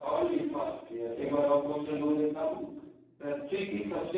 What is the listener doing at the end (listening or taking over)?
listening